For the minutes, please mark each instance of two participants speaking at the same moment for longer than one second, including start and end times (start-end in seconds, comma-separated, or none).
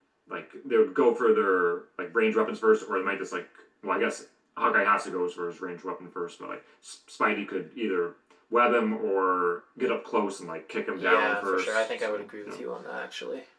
11.0-12.6